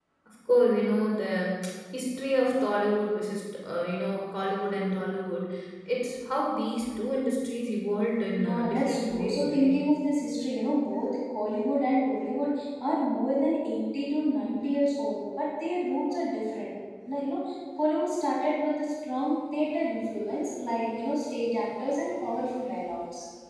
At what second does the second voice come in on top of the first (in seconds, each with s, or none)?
8.4 s